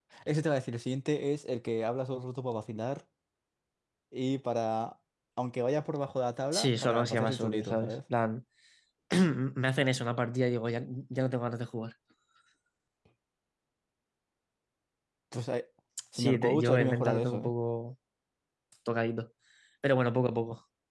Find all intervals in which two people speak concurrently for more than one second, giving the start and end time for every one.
6.5-7.9, 16.1-17.5

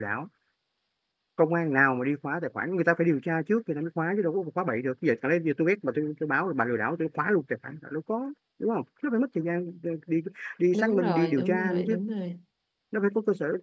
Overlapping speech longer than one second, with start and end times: 10.7-12.0

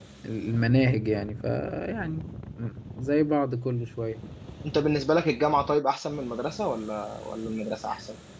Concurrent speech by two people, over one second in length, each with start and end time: none

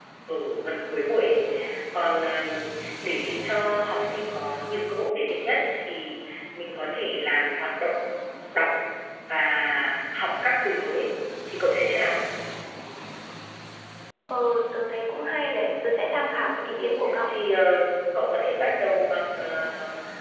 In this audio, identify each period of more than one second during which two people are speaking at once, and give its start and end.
none

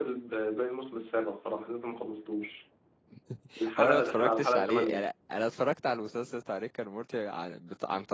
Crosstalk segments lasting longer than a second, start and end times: 3.8-5.0

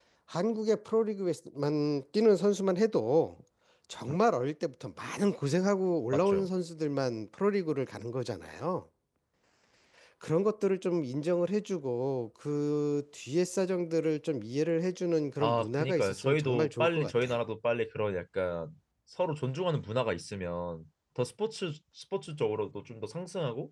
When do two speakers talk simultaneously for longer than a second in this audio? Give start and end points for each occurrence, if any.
15.4-17.4

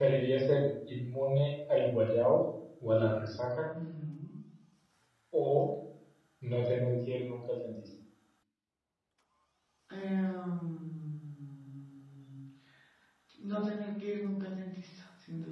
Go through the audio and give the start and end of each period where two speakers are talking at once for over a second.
none

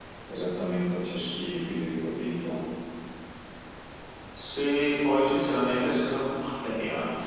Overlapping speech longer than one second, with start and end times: none

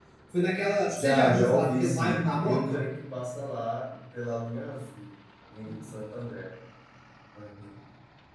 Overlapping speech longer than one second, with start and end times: 1.0-2.8

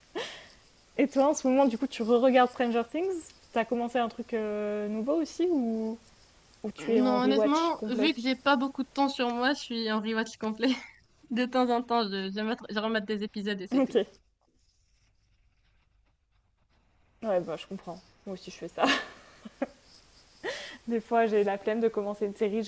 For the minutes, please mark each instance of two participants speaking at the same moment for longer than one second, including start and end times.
6.8-8.1

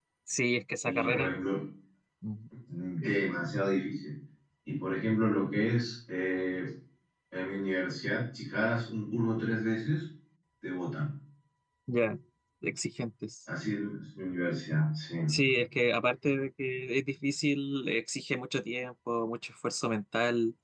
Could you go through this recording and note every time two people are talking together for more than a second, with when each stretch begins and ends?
none

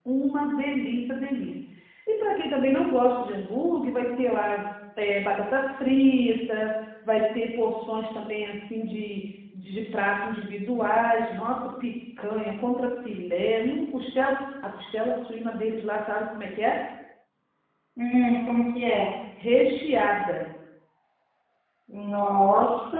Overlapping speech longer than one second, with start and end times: none

